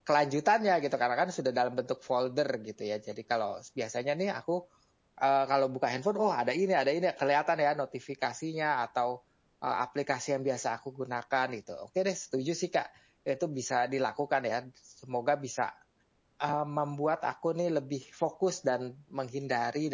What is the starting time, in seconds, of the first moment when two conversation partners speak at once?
none

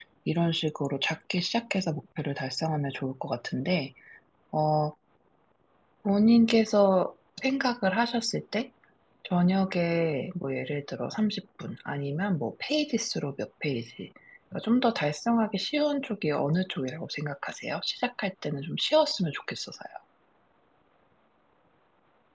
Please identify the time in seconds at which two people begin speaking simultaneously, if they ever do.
none

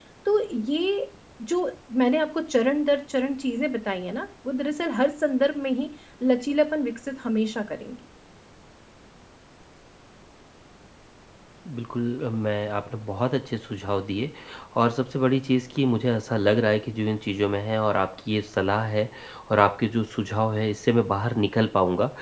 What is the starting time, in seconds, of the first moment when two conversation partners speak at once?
none

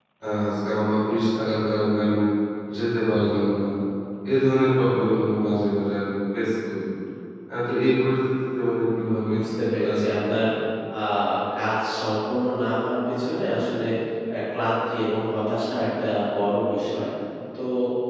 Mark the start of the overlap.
8.9 s

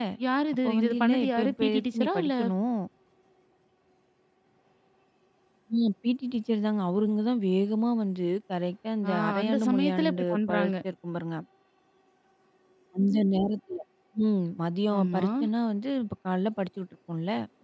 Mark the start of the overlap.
0.6 s

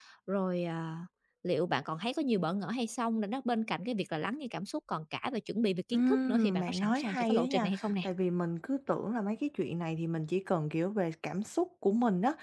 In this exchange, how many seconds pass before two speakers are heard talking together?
5.9 s

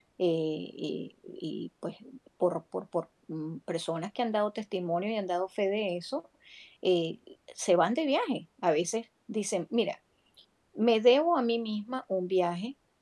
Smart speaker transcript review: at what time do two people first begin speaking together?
none

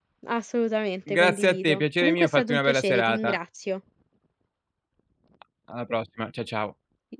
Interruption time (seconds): 1.1 s

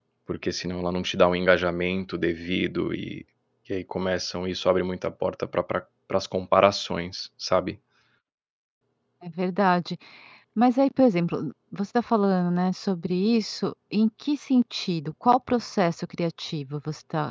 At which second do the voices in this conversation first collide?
none

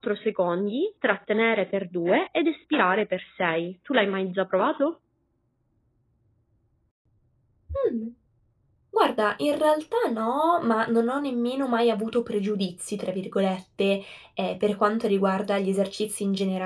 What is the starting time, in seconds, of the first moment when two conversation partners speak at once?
none

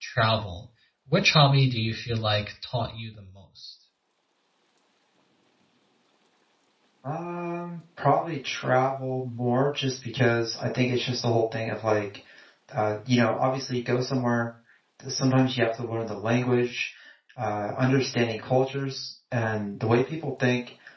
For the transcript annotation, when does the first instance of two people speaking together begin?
none

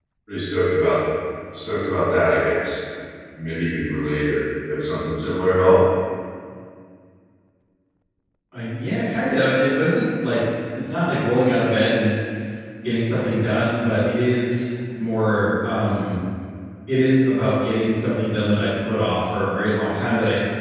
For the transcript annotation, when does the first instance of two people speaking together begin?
none

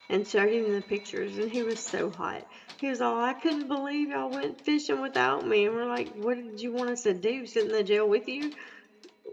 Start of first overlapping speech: none

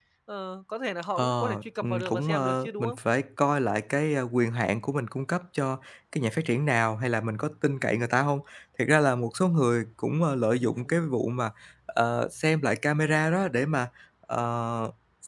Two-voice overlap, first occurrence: 1.2 s

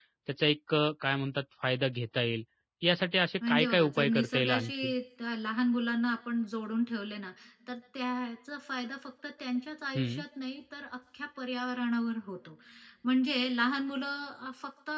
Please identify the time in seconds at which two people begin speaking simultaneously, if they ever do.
3.5 s

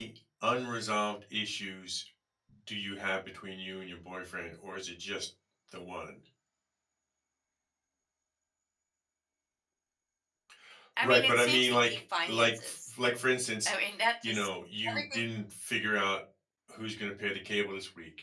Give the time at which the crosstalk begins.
11.0 s

